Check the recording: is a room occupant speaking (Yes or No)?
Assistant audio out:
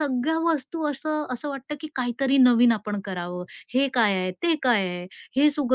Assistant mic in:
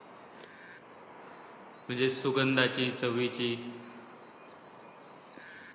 Yes